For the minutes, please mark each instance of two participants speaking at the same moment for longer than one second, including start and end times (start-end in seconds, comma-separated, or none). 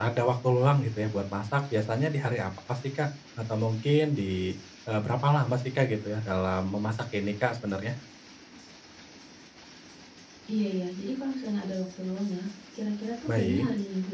none